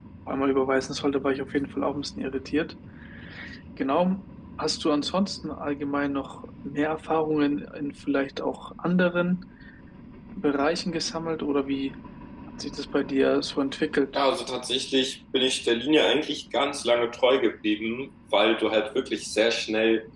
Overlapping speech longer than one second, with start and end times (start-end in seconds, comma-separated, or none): none